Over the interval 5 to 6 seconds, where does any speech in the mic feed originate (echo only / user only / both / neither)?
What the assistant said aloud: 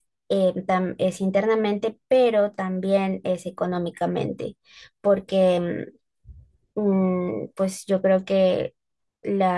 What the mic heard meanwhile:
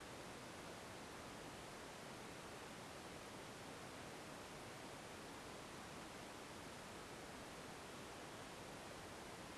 neither